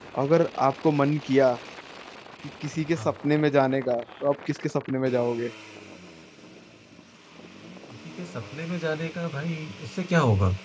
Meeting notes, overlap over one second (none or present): none